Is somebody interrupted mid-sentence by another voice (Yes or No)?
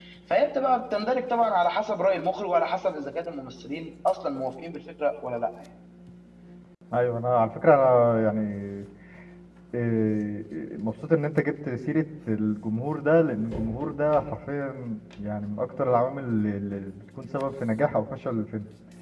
No